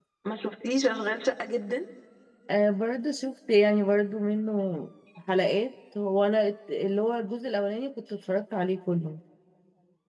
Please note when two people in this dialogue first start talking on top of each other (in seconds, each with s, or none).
none